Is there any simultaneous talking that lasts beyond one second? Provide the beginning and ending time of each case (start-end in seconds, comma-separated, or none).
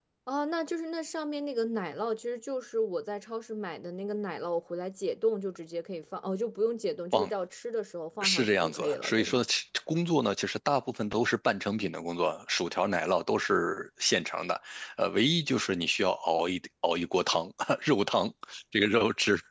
8.2-9.4